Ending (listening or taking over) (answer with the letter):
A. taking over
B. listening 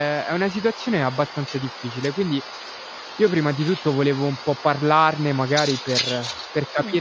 B